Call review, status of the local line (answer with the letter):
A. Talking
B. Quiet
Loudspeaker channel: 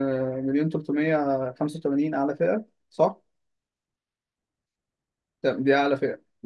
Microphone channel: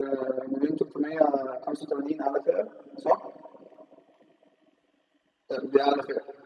B